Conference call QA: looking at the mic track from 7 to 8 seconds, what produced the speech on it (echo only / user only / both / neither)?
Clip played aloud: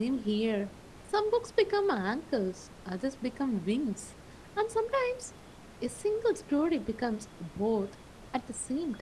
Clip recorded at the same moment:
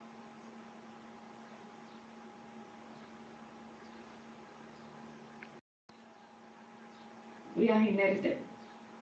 user only